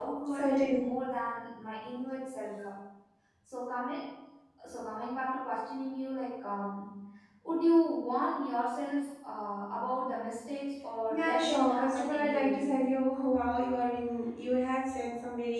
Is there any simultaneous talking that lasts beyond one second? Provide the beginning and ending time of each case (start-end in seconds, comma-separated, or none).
11.1-12.8